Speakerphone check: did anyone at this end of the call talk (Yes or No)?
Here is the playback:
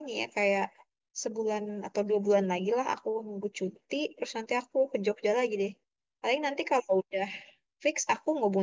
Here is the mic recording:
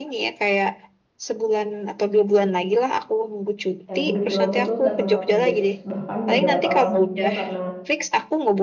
Yes